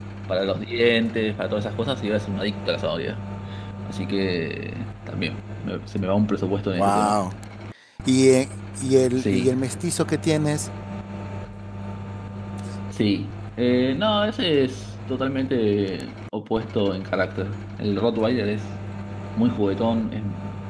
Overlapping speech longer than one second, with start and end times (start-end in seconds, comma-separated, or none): none